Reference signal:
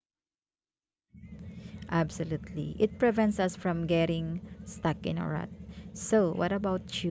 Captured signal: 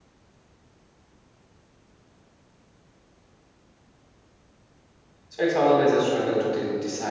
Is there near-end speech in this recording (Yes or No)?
Yes